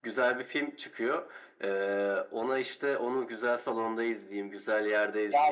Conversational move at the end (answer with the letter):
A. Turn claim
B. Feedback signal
A